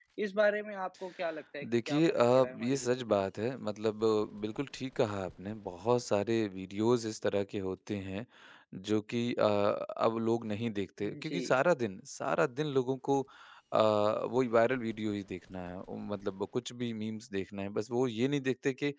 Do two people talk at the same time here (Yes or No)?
Yes